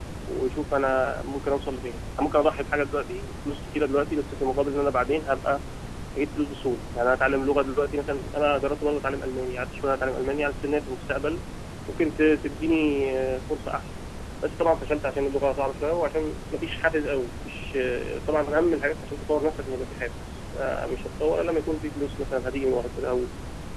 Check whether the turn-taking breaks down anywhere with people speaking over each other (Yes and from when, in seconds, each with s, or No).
No